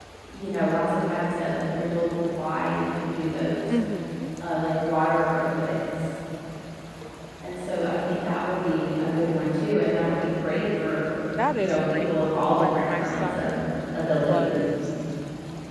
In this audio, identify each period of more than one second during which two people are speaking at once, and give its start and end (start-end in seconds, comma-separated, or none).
11.6-13.6